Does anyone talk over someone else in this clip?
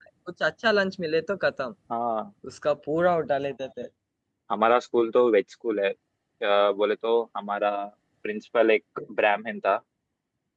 No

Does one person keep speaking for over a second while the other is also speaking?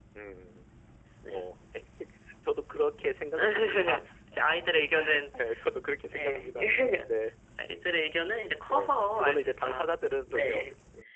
Yes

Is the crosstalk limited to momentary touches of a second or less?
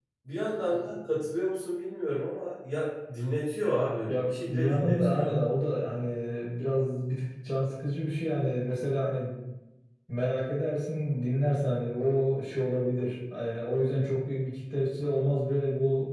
No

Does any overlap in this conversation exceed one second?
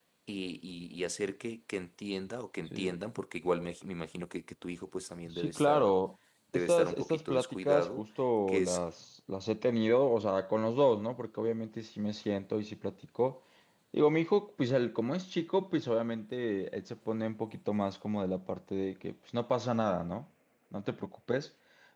Yes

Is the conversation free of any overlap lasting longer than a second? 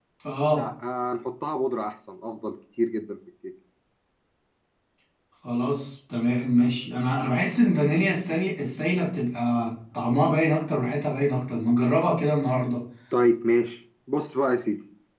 Yes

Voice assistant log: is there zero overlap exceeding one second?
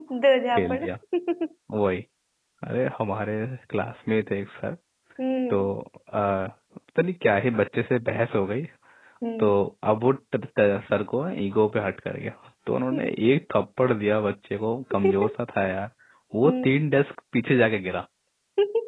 Yes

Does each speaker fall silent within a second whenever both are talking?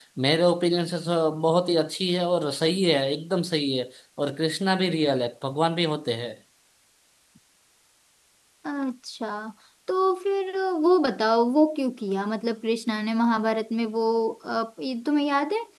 Yes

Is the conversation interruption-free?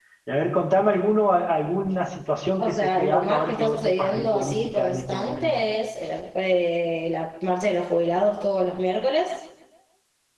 No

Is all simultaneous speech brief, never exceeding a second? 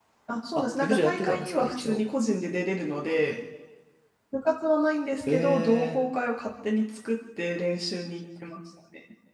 No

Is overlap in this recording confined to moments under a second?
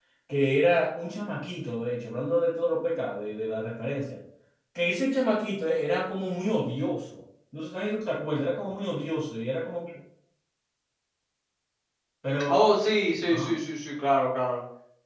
Yes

